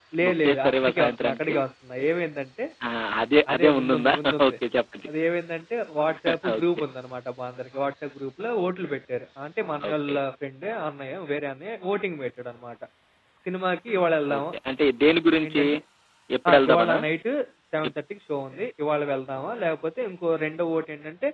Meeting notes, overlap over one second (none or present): present